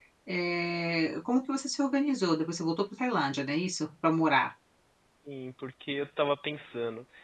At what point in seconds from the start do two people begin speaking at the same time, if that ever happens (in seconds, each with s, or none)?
none